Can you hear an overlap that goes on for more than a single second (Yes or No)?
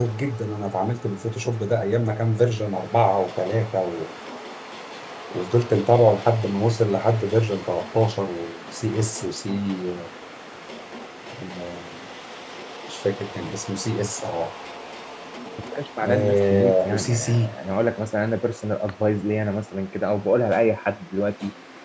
Yes